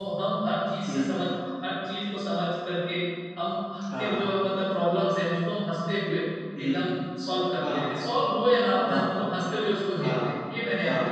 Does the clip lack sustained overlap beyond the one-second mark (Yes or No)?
Yes